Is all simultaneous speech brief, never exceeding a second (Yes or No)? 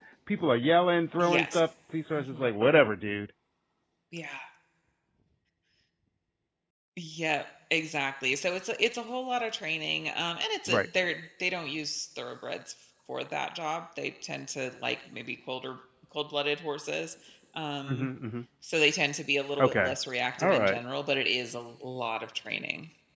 Yes